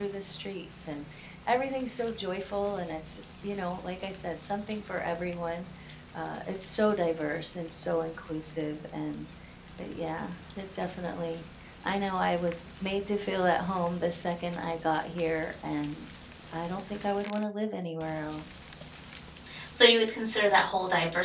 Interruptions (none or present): none